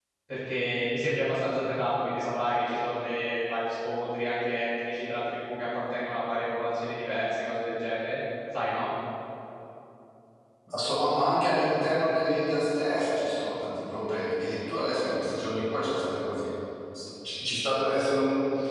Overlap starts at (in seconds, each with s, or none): none